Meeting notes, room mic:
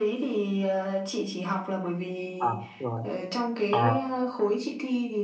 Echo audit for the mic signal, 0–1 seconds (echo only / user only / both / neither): echo only